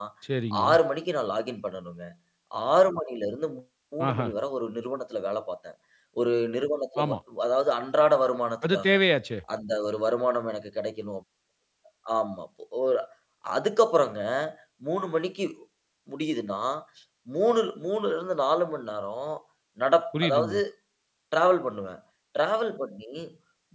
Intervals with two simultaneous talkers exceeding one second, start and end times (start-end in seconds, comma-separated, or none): none